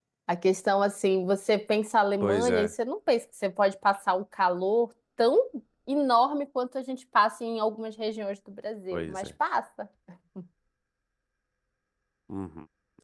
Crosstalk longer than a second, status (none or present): none